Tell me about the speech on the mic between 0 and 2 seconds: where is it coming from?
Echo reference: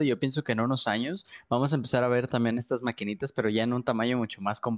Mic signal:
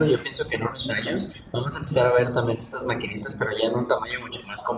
echo only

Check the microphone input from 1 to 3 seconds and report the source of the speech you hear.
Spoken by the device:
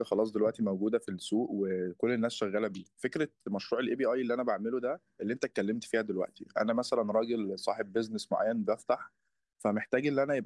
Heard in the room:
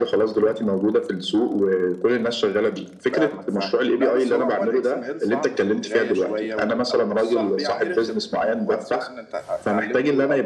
echo only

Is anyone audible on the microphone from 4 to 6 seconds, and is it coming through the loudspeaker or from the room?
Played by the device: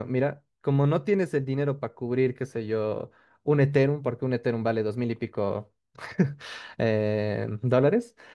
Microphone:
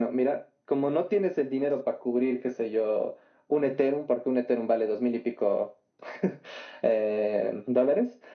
echo only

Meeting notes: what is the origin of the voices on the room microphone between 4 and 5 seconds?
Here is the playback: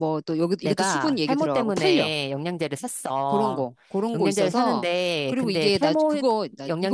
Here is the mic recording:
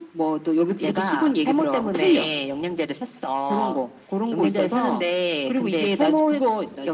echo only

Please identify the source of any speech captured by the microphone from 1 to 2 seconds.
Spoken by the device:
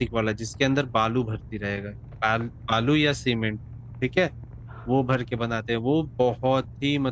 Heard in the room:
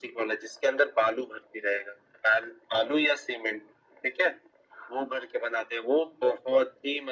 echo only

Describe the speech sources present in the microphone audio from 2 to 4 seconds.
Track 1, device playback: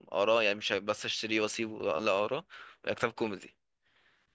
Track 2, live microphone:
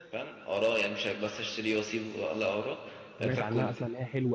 both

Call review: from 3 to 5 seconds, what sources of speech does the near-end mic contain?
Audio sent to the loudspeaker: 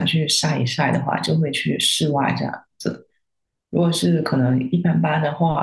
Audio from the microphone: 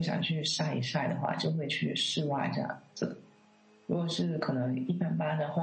echo only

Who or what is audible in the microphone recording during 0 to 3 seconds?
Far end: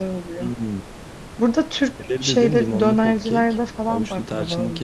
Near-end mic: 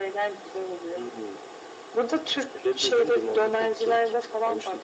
echo only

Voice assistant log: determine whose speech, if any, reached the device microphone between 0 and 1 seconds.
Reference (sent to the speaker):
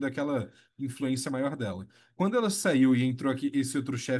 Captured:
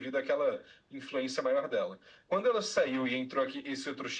echo only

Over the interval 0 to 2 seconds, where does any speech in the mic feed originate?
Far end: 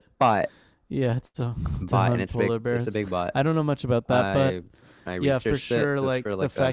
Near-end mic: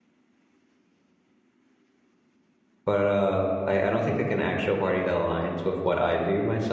neither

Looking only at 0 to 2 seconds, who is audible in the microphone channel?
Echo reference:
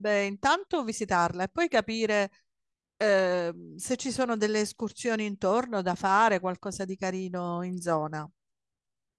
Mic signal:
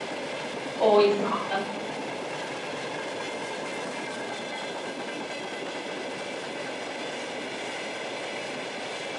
user only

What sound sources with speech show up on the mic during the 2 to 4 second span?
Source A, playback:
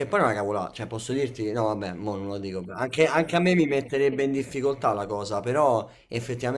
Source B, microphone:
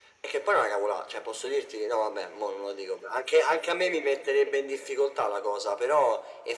echo only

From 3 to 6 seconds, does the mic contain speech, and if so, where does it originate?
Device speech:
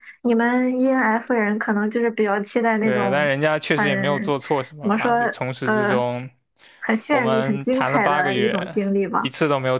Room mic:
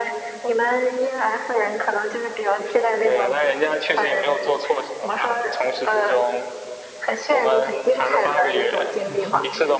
echo only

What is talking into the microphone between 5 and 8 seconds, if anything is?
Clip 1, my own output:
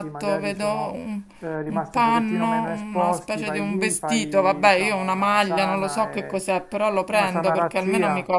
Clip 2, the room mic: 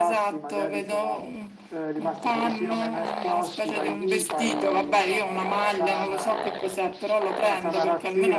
echo only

